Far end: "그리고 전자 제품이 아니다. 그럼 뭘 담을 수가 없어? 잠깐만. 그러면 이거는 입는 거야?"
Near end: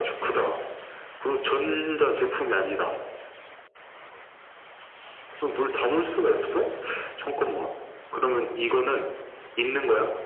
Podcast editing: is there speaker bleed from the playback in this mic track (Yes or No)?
Yes